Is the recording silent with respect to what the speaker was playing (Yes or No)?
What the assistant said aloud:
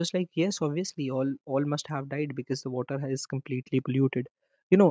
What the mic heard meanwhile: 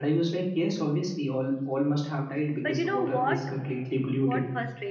No